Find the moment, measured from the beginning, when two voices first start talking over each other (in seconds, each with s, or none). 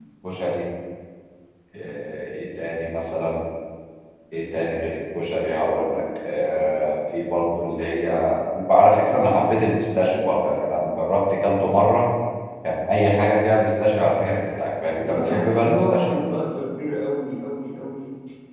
14.9 s